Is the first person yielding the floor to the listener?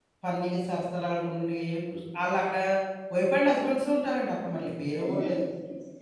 Yes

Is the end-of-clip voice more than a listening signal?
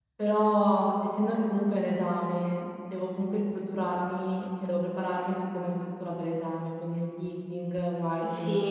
Yes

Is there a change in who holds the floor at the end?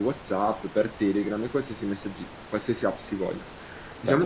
Yes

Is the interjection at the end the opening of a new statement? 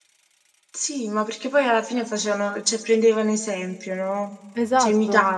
Yes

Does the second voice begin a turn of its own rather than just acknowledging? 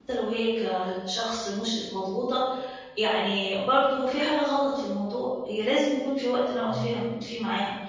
No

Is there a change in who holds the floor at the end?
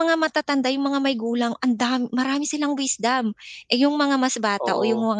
No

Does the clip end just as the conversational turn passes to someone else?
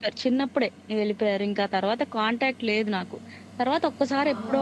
No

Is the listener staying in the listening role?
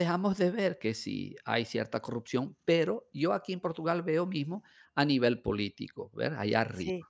Yes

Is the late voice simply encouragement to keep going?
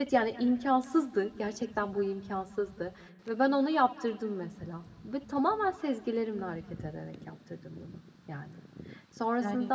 Yes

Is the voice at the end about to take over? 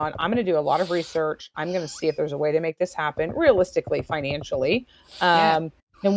No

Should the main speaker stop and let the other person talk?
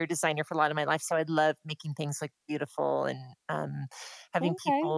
No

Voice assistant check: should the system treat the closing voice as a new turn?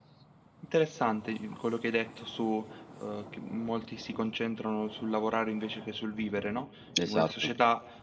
No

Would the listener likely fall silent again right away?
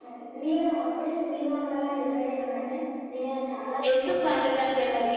No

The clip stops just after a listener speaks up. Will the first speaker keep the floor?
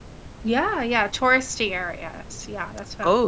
No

